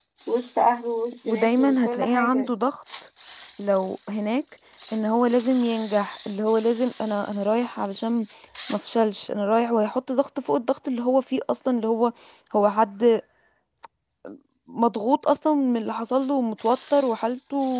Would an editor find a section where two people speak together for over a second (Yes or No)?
Yes